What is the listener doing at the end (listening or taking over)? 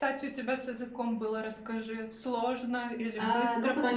taking over